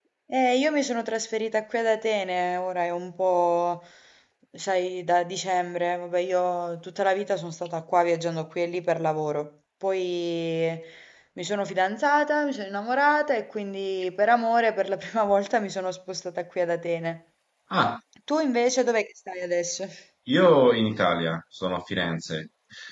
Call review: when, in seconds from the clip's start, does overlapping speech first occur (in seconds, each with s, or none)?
none